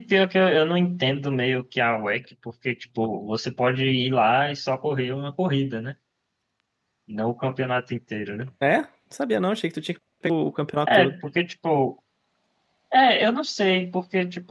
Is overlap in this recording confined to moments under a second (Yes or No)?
Yes